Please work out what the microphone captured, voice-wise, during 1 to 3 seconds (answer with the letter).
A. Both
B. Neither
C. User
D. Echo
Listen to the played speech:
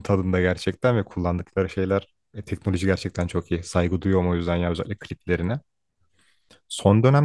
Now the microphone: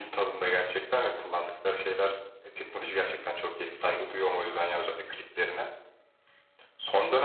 D